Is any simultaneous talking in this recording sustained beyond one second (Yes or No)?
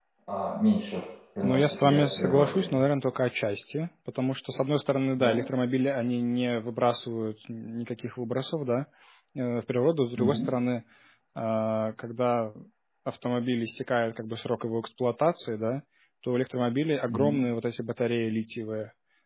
Yes